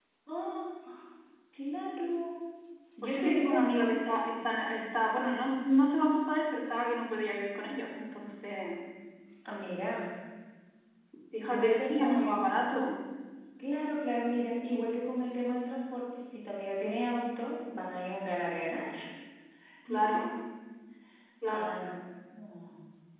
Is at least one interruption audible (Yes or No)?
Yes